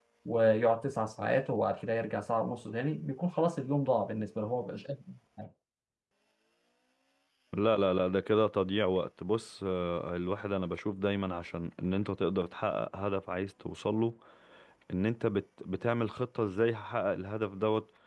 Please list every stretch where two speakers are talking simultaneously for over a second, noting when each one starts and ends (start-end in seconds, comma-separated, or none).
none